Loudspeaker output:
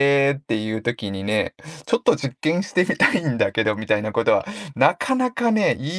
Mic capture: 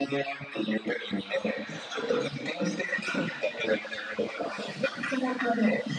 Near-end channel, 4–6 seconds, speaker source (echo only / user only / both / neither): echo only